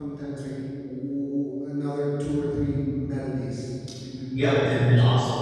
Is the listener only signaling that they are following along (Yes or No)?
No